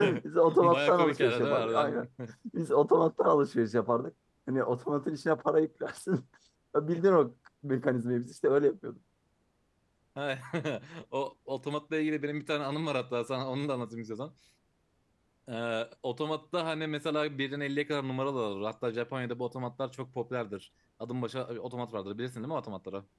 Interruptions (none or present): present